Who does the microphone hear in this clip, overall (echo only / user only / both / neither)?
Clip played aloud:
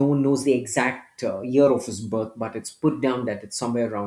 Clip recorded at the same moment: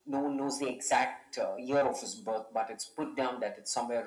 echo only